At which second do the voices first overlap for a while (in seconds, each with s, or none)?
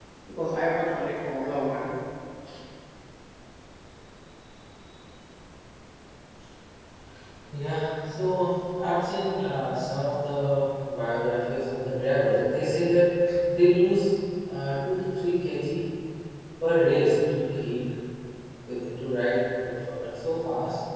none